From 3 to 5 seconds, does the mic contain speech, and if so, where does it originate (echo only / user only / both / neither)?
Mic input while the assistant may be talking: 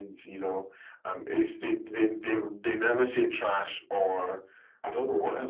echo only